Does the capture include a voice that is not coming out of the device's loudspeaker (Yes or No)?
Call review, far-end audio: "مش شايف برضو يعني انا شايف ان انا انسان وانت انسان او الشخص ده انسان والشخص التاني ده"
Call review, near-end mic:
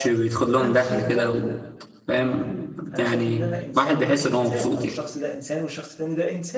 Yes